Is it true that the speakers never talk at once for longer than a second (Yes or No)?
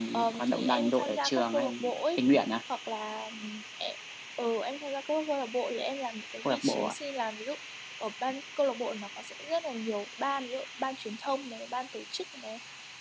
No